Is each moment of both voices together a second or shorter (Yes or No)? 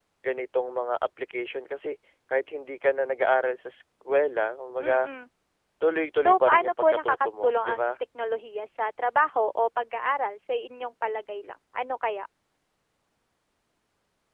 No